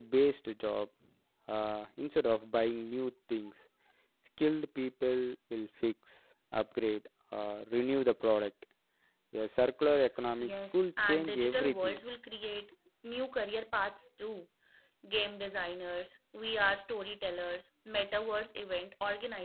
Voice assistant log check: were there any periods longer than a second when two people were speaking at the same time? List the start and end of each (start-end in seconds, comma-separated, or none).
10.4-12.0